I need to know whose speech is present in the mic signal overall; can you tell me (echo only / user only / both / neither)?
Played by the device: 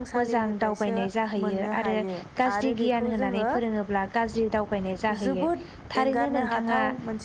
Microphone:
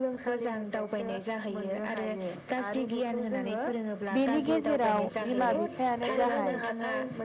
both